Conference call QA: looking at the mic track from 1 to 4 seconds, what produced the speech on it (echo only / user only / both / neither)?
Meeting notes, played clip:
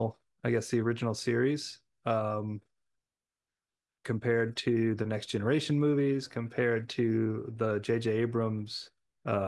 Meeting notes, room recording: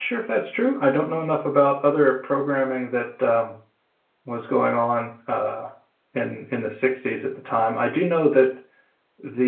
user only